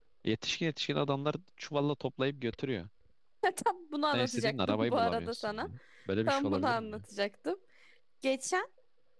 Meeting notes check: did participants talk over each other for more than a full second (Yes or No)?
Yes